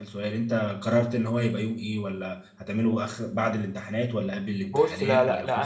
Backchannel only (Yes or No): No